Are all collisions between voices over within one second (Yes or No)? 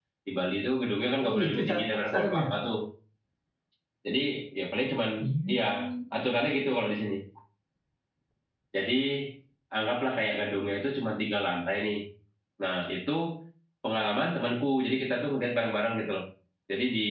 No